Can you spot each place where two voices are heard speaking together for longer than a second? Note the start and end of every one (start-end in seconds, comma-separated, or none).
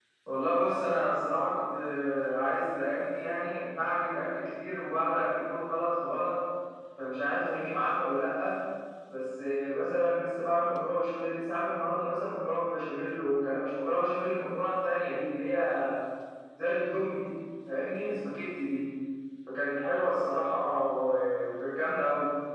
none